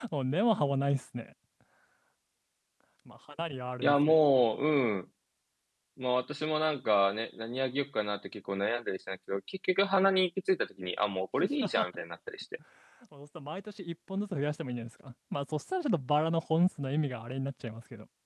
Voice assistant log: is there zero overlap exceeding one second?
Yes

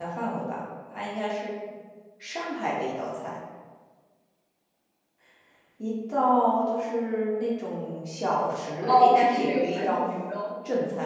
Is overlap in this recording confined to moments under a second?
No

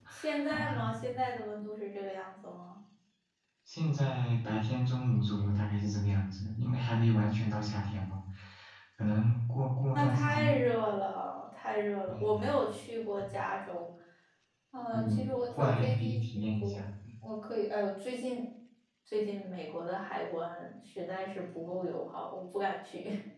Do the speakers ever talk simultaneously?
Yes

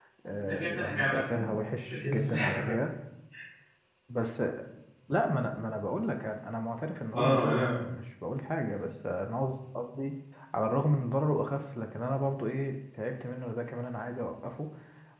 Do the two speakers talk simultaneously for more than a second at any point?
Yes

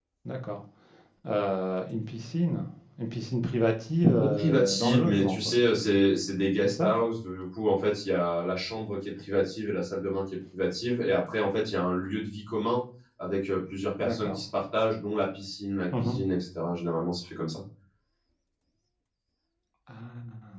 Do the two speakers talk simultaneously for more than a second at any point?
Yes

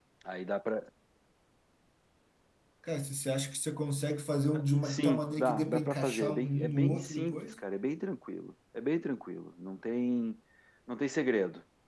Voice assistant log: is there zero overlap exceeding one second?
No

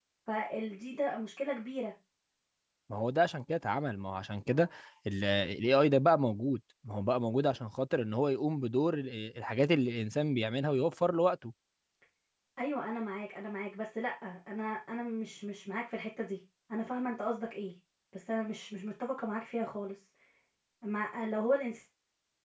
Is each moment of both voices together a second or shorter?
Yes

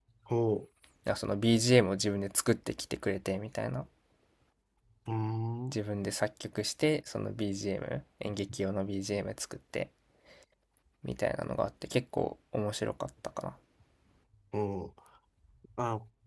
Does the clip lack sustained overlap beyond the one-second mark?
Yes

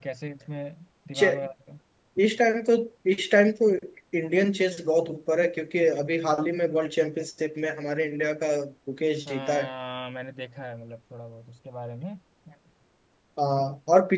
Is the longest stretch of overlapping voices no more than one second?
Yes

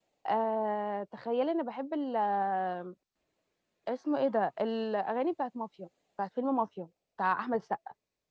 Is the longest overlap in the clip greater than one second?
No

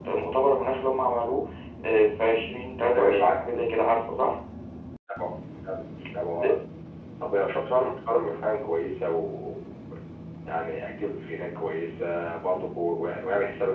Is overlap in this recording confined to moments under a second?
Yes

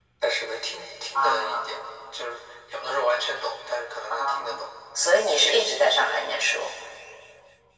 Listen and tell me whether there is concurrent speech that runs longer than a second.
No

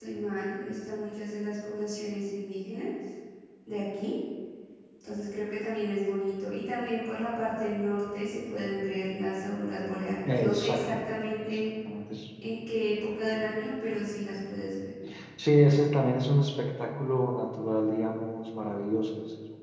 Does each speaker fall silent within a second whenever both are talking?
No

